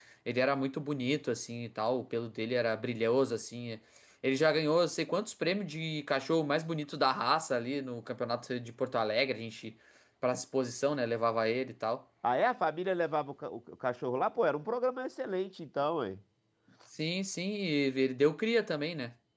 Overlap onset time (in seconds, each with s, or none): none